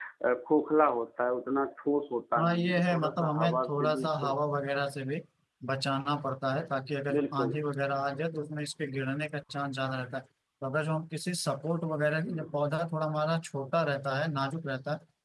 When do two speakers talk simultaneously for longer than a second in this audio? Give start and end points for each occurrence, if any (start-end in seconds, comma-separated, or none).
2.4-4.4